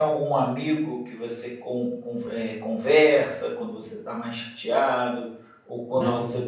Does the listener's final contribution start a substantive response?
No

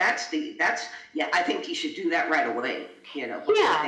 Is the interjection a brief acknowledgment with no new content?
No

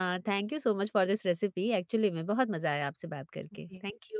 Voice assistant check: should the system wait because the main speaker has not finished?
No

